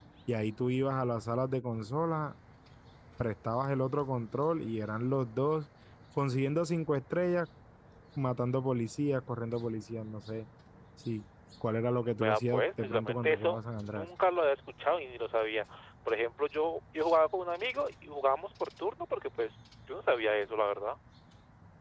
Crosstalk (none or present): present